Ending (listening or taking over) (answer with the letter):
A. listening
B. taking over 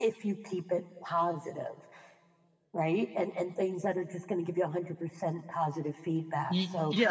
B